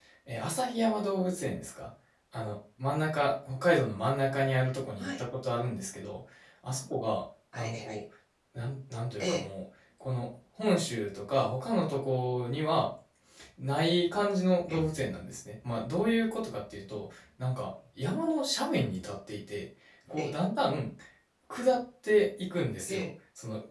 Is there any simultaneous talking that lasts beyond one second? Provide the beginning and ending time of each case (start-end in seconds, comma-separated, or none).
none